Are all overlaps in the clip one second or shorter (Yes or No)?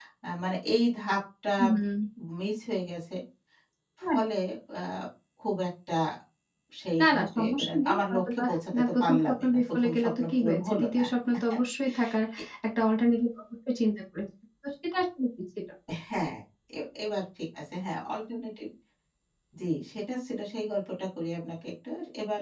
No